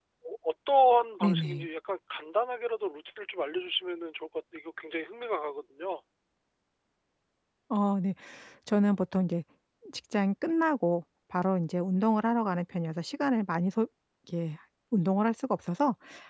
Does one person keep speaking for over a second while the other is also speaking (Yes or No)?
No